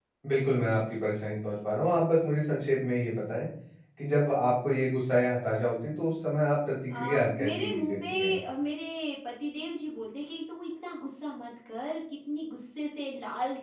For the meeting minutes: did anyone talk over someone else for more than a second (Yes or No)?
Yes